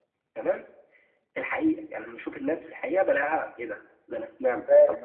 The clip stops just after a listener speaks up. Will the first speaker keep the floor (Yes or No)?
Yes